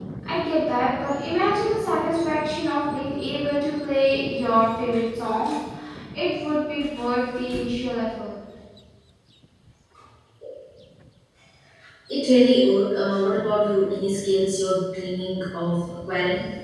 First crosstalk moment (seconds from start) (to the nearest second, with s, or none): none